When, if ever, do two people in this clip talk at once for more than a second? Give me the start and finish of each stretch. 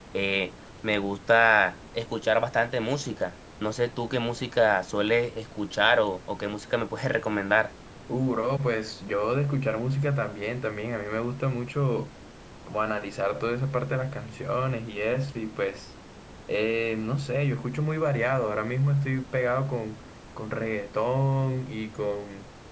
none

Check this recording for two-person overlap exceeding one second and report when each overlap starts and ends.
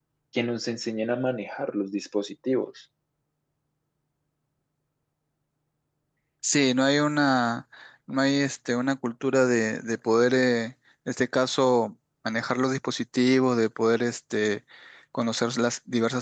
none

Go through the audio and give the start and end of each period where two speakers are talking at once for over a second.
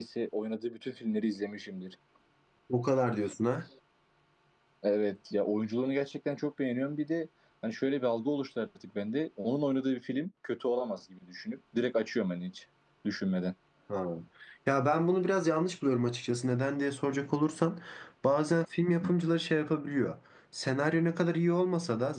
none

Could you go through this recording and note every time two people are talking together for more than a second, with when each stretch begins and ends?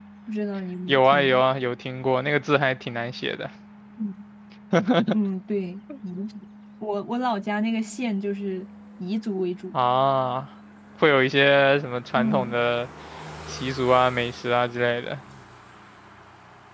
none

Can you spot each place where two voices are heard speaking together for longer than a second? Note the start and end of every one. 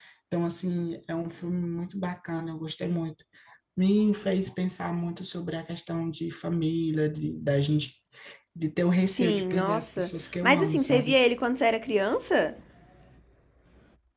9.1-11.2

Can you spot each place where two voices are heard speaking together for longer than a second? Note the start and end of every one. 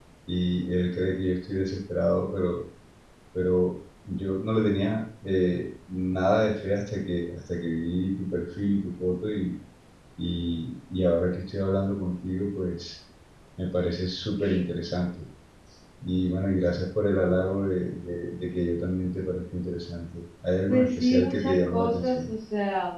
20.7-22.3

